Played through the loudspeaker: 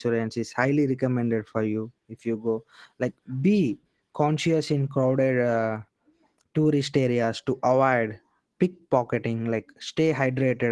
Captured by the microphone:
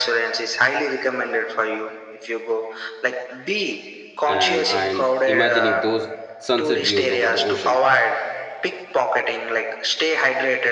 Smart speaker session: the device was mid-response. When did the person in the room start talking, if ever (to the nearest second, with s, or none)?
4 s